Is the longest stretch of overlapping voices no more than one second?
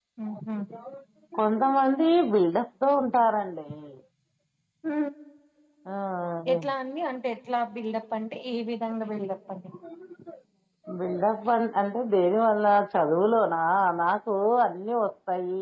Yes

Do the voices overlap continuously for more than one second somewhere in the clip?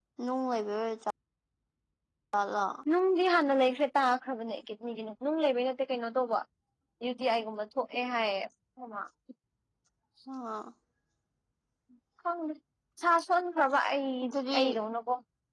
No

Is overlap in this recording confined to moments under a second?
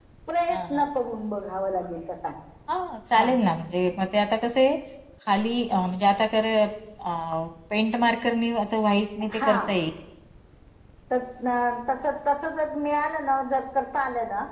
Yes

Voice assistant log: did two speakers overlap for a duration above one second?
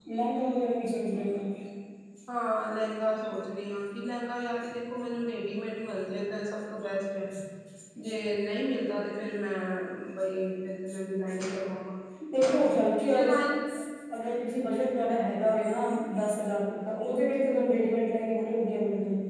No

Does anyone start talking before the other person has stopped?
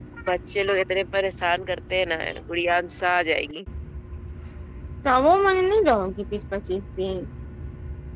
No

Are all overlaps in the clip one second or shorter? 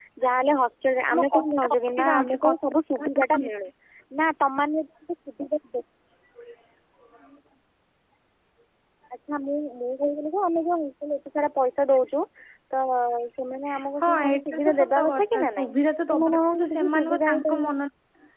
No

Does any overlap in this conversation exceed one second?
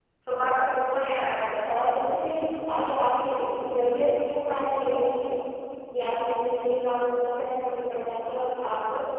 No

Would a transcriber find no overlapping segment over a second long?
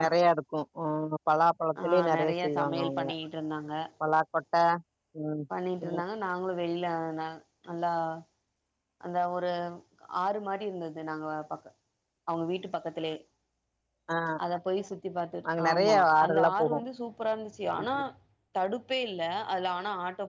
No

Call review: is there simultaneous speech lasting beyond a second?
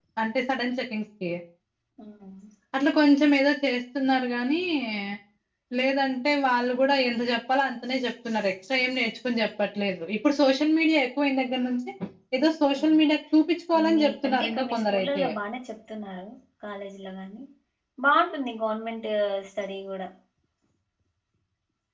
Yes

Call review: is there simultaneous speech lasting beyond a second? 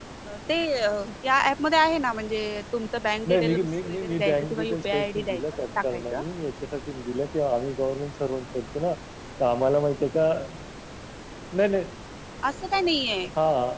Yes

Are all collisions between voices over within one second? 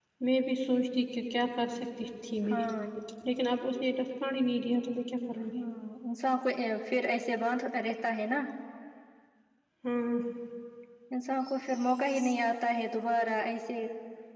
Yes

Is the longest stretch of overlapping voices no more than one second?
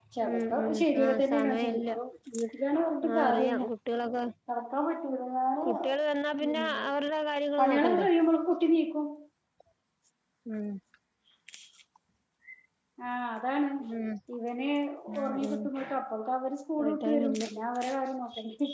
No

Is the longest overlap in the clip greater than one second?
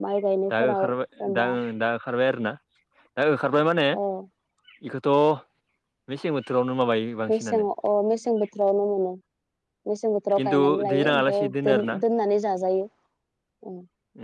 Yes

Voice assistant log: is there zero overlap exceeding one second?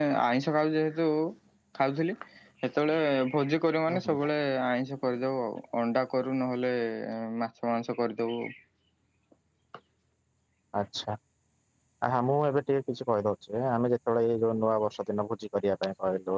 Yes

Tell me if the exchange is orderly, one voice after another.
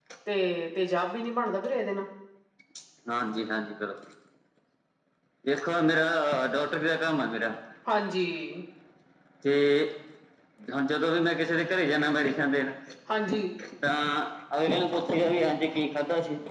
Yes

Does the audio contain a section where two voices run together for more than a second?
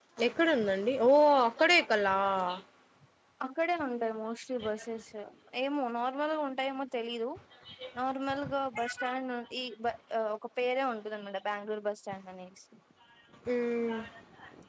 No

